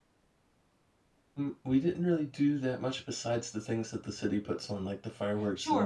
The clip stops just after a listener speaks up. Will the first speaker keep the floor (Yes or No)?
No